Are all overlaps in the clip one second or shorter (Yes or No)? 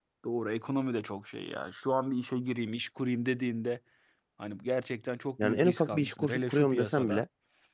No